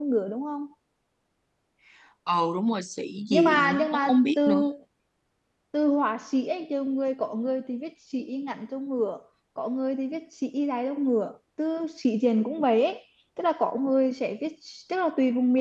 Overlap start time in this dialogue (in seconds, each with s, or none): 3.3 s